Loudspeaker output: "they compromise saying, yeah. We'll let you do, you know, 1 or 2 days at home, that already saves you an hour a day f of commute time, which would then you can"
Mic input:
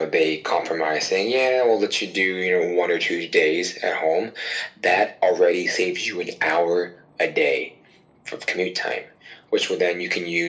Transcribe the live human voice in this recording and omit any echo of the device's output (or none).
none